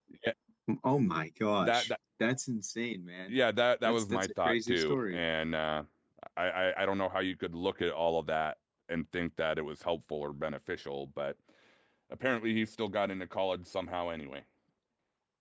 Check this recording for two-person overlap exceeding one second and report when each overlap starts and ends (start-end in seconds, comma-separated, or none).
3.8-5.2